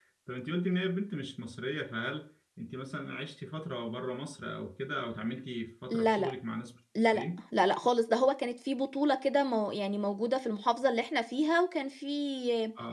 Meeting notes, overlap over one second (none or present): none